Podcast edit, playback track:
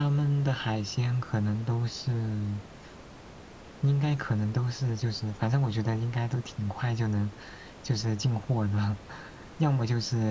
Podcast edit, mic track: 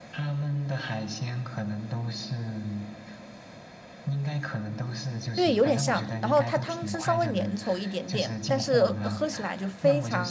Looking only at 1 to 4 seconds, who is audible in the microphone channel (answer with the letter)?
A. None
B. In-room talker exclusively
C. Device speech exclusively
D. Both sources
C